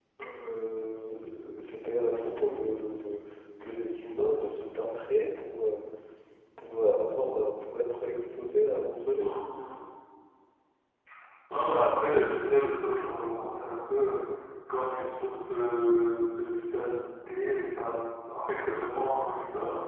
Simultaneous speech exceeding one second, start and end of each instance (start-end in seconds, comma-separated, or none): none